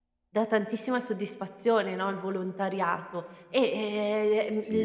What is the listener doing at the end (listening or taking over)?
listening